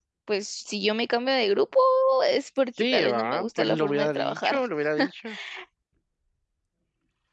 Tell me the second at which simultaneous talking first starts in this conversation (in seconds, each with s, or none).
2.8 s